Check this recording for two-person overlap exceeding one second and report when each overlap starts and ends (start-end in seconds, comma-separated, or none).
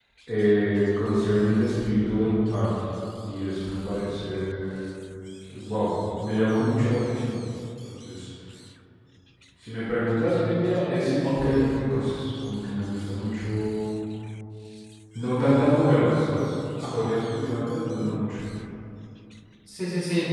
none